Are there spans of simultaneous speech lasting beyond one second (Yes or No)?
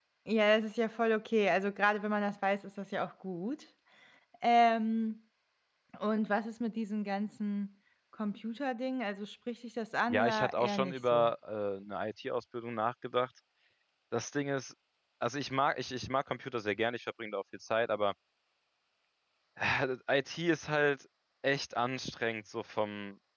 Yes